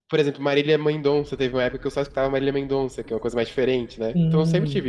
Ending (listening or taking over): taking over